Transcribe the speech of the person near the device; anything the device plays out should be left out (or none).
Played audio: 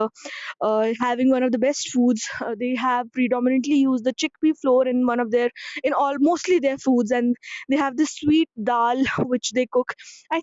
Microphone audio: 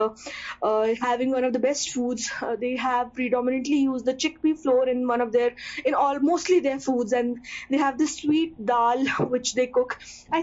none